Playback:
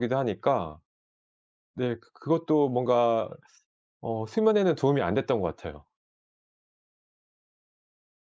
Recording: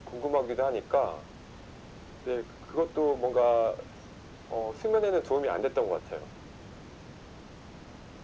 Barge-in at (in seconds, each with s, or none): none